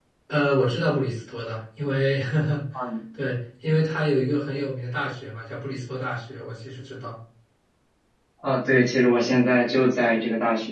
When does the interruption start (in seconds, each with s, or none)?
none